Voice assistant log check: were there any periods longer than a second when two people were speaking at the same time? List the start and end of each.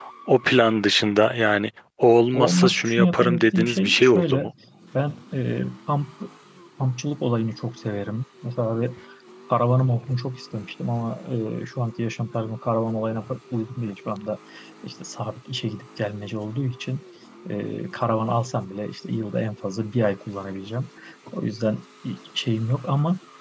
2.3-4.5

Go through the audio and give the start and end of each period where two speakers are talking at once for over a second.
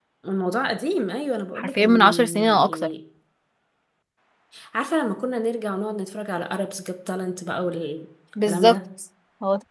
1.6-2.9

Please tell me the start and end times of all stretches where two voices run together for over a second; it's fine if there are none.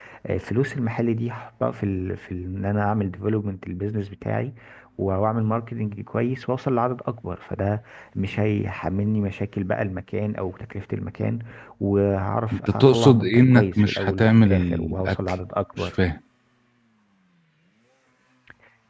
12.5-15.2

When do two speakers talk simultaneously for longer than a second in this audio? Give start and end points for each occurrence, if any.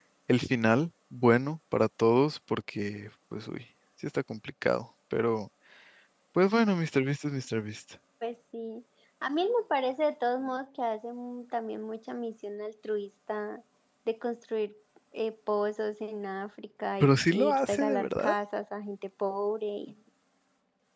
17.0-18.3

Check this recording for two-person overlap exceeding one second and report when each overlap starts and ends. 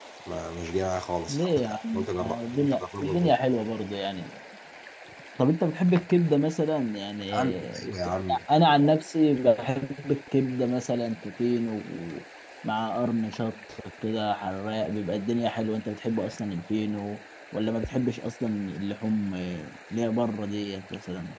1.3-3.3

